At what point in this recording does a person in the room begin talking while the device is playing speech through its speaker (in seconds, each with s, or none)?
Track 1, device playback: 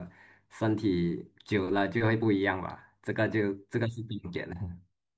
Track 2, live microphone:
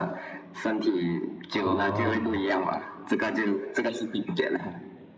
1.6 s